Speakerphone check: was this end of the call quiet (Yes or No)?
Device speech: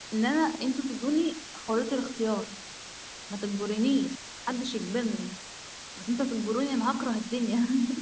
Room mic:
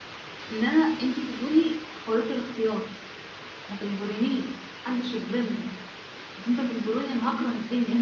Yes